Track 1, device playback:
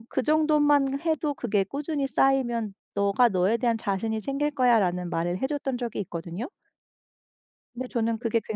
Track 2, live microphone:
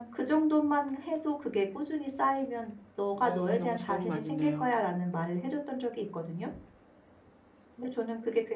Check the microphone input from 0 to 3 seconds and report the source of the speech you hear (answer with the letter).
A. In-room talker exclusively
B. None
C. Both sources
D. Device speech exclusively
D